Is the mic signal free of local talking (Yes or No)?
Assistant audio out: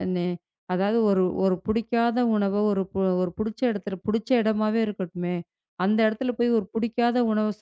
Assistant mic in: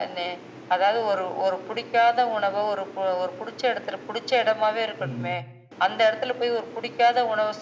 No